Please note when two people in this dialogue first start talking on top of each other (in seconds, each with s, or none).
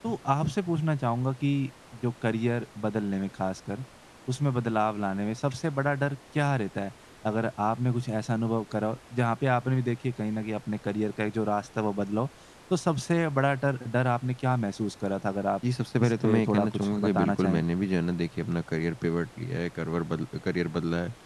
16.0 s